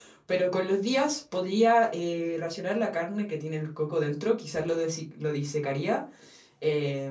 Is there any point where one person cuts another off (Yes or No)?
No